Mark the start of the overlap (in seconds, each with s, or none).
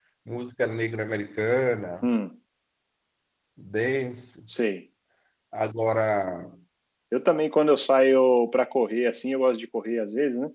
none